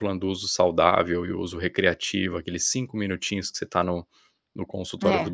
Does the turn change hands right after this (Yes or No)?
No